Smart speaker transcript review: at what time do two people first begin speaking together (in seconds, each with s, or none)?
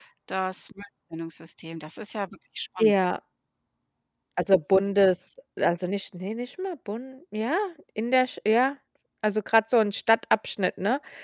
none